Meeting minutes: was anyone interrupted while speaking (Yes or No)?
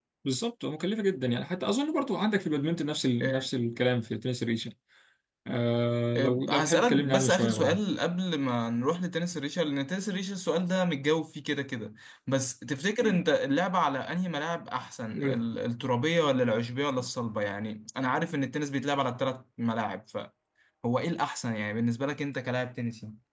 Yes